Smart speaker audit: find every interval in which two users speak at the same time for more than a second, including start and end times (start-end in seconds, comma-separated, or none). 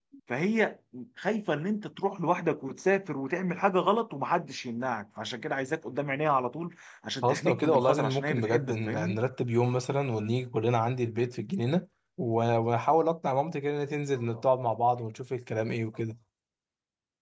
7.2-9.2